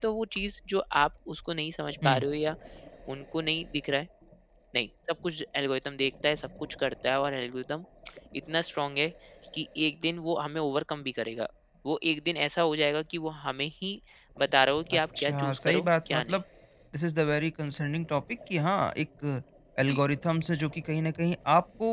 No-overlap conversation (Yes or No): No